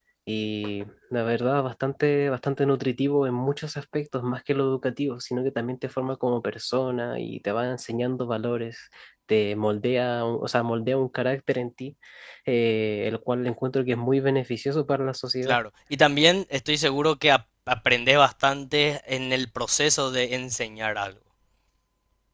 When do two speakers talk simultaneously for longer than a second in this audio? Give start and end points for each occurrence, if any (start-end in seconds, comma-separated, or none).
none